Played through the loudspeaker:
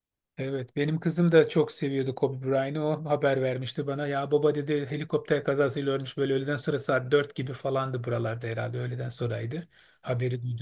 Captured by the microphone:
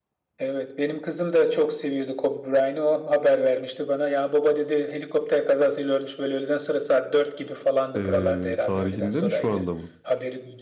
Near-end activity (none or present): present